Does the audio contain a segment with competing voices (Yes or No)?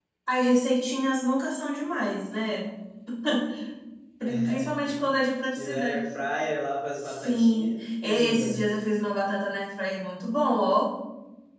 Yes